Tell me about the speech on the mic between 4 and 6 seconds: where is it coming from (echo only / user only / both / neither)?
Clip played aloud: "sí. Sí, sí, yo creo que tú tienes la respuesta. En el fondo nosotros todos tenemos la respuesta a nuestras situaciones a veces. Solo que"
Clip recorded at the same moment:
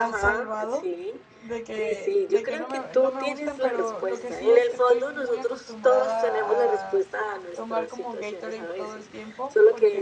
both